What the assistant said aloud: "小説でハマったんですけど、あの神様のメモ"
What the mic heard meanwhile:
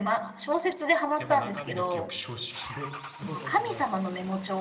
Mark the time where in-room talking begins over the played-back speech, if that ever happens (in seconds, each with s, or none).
1.1 s